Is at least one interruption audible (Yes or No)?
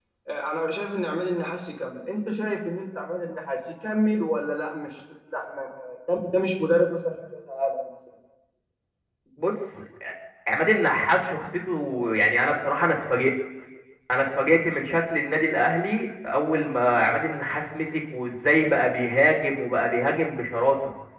No